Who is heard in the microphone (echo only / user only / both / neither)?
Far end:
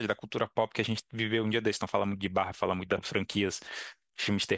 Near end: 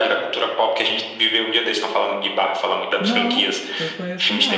both